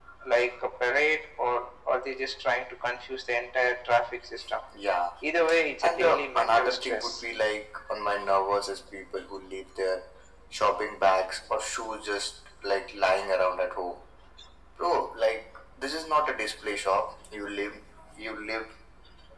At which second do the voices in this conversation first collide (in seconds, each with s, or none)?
5.8 s